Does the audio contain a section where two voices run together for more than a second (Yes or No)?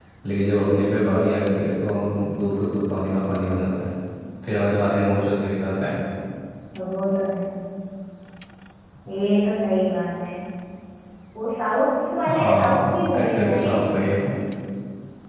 Yes